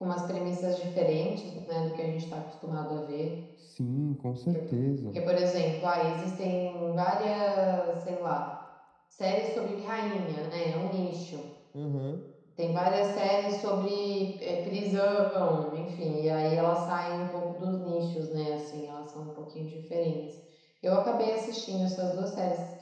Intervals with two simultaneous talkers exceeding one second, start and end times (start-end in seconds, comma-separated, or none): none